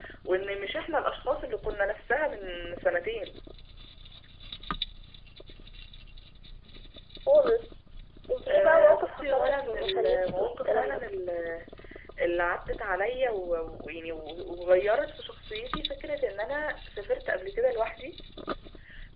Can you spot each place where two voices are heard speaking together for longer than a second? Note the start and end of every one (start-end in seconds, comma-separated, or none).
8.5-11.0